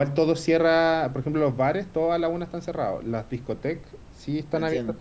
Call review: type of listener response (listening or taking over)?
listening